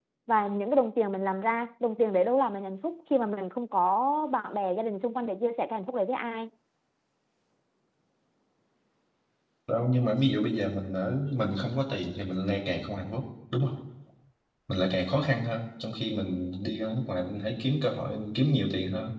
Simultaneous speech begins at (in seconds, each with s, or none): none